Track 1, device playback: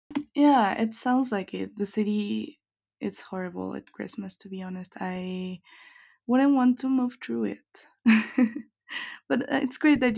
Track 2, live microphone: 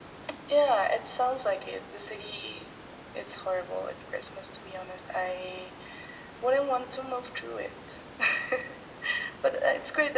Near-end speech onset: none

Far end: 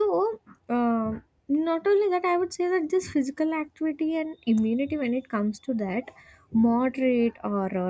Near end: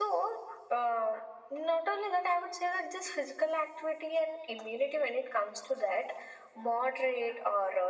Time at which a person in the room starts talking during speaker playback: none

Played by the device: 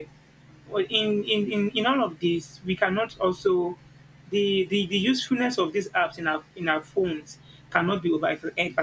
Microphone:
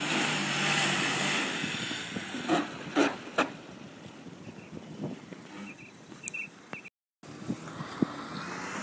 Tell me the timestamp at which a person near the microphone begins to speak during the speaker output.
none

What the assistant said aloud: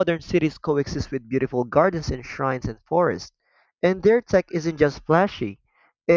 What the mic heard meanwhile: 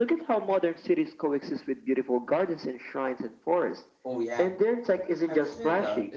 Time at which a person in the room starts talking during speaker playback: 4.0 s

